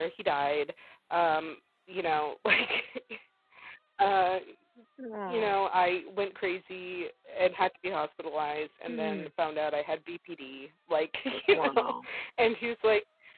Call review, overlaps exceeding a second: none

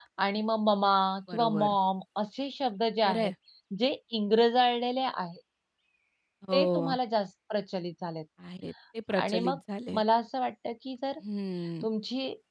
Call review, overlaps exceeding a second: none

